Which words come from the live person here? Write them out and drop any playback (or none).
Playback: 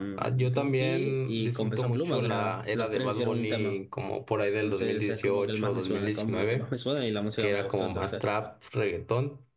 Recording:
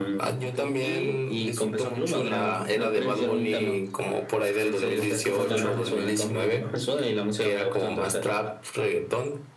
de Puerto Rico?